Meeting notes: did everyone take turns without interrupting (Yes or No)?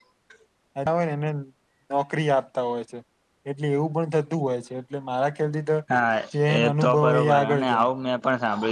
No